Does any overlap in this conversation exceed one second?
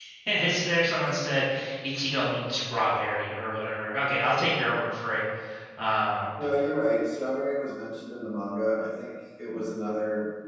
No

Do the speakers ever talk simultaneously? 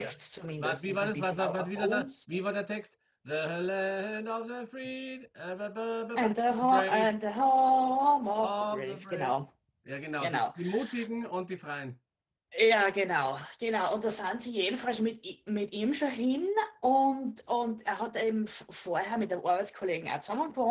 Yes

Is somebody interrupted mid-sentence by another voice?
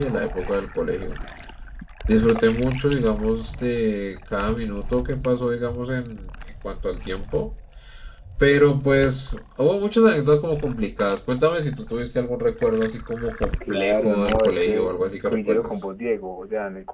Yes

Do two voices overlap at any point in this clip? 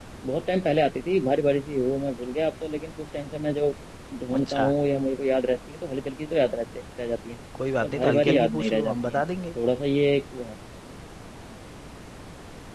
Yes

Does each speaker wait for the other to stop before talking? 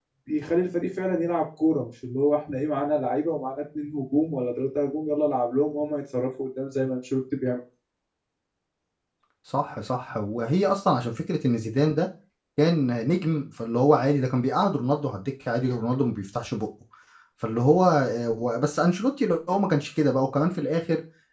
Yes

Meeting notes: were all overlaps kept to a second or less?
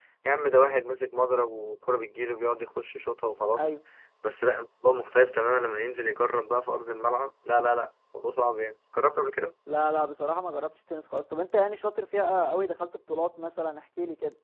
Yes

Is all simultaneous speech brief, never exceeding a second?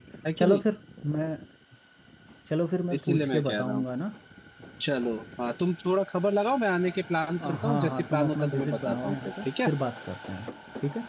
No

